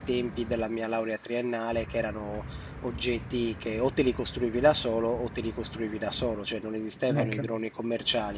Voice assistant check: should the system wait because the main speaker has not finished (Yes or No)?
Yes